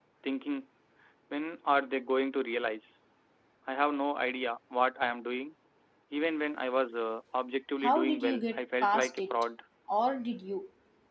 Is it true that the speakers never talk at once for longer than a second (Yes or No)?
No